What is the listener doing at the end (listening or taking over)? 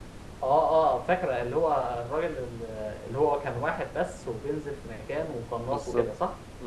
taking over